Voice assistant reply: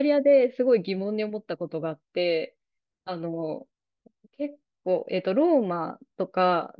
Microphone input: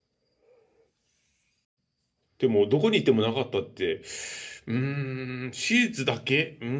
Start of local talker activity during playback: 2 s

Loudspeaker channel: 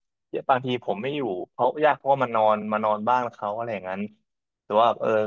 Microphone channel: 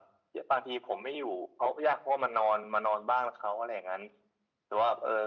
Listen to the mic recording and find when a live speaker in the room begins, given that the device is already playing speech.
none

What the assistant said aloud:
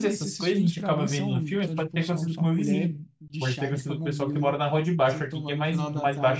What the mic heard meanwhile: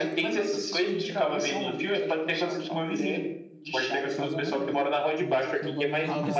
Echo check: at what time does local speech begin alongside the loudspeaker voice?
4 s

